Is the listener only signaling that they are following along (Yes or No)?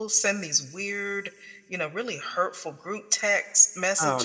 Yes